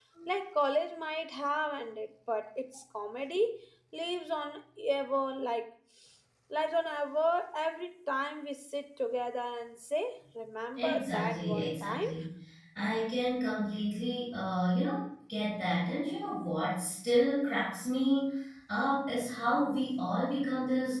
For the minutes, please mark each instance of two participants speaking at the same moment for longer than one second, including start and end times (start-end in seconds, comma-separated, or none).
10.8-12.1